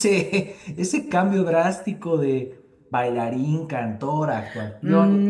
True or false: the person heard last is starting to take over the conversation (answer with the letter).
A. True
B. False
A